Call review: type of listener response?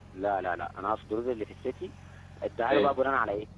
listening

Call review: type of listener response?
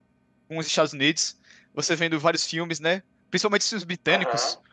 listening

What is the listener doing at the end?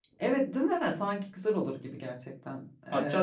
taking over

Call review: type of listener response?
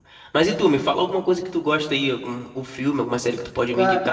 taking over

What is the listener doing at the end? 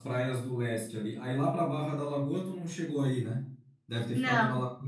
listening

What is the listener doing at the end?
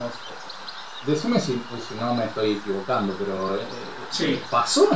listening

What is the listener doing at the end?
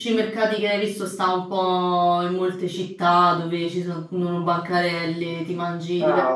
taking over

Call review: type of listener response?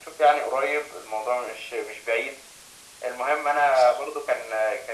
listening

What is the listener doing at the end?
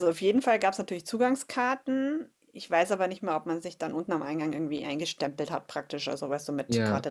listening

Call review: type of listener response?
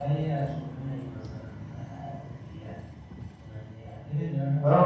taking over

